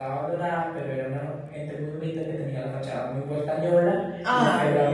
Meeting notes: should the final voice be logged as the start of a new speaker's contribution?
No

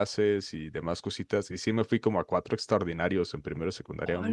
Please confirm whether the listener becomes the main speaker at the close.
No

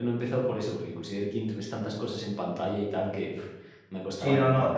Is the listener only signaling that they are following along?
No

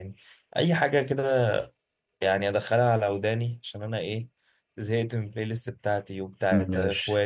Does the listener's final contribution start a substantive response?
No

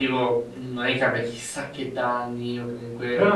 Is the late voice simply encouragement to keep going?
No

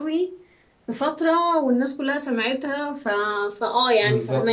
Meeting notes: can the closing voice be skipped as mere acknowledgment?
No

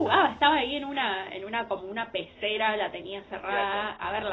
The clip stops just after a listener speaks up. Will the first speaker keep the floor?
Yes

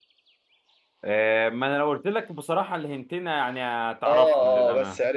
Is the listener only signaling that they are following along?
No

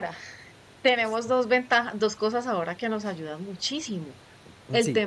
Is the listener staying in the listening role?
Yes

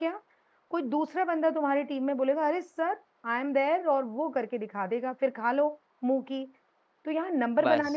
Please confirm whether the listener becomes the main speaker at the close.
No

